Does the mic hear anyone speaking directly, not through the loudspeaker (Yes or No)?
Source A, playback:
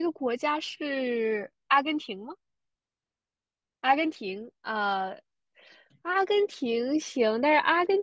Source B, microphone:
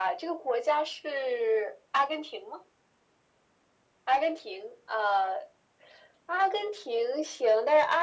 No